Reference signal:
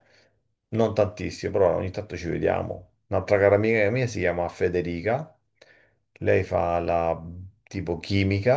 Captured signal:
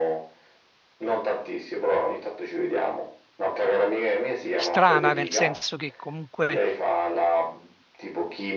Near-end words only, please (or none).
strana, nel senso che comunque